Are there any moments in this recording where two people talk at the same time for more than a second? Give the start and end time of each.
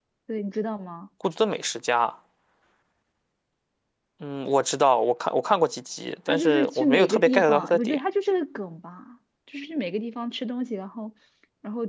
6.3-8.0

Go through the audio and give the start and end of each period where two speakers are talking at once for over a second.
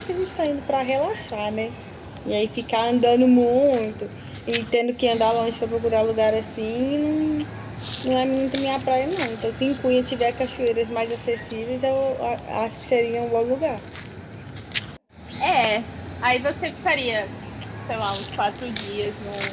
none

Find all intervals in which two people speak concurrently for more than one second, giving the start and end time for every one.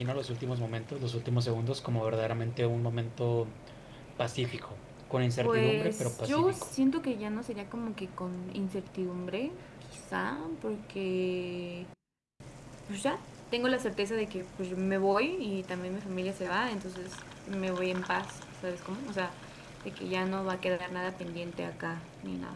5.4-6.7

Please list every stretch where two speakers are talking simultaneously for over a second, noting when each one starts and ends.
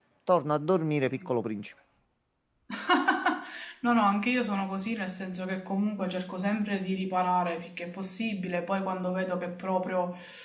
none

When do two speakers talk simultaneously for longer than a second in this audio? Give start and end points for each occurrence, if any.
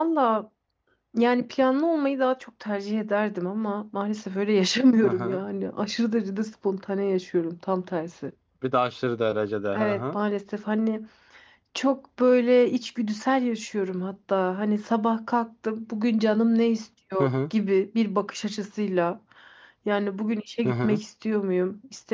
none

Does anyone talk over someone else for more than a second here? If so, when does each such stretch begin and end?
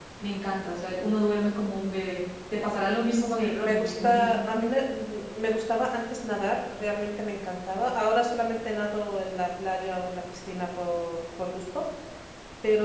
3.1-4.3

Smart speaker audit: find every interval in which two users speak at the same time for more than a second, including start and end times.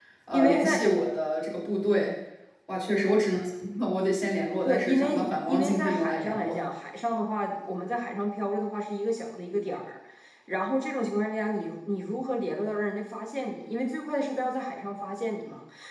4.7-6.5

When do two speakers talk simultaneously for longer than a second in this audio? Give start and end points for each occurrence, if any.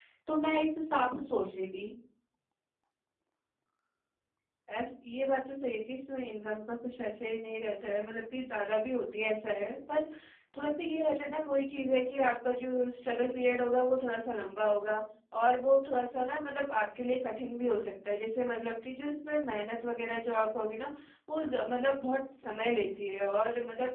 none

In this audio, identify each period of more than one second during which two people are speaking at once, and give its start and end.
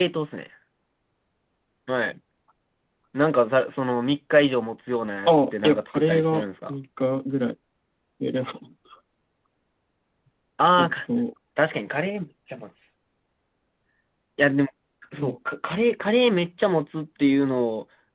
5.3-6.7

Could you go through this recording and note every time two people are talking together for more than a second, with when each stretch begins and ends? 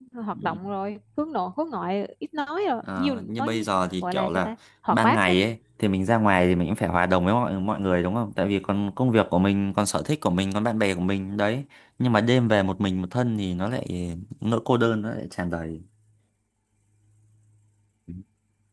3.0-4.5

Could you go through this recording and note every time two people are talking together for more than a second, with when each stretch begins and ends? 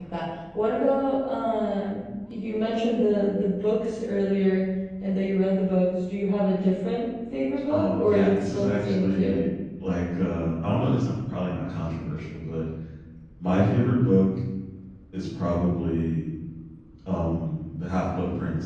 7.7-9.4

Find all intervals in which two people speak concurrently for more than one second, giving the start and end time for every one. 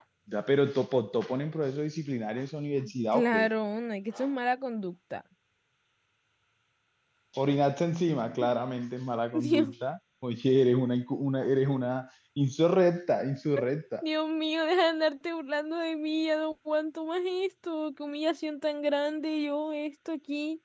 none

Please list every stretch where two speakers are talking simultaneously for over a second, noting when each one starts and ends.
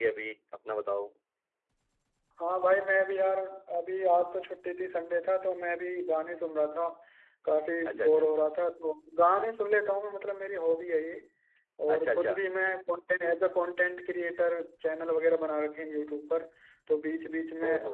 none

